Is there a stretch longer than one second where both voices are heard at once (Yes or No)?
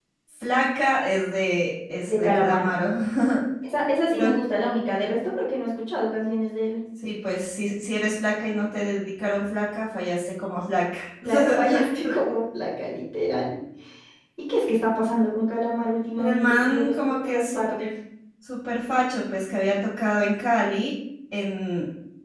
Yes